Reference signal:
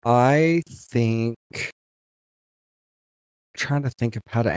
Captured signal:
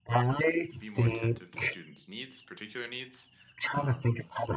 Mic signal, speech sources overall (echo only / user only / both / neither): both